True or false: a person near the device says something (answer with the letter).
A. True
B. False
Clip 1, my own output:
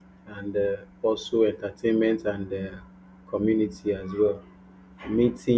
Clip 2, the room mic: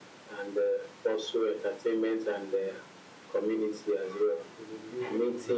A